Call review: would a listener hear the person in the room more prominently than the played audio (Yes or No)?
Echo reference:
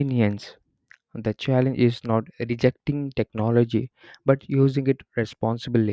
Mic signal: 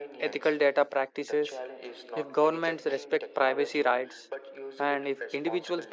Yes